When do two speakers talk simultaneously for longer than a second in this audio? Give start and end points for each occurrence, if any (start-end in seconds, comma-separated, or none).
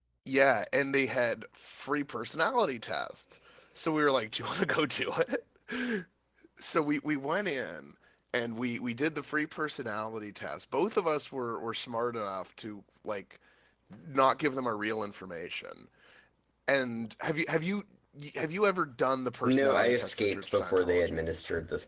19.4-21.2